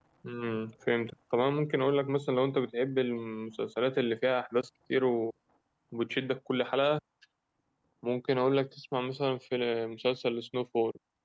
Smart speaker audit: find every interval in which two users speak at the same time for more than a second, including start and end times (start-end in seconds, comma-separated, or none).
none